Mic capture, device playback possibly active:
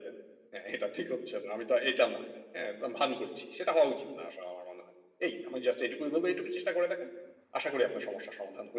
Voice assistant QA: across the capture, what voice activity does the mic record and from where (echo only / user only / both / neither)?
echo only